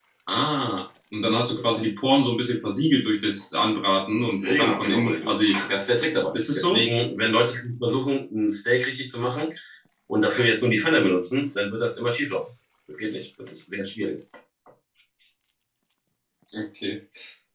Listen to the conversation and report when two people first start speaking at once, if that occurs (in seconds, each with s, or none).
4.3 s